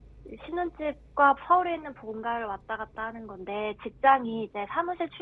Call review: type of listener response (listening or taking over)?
listening